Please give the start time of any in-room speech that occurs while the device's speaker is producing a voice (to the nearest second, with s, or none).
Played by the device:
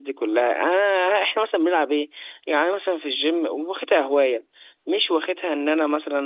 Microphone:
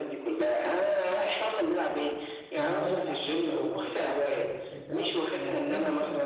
3 s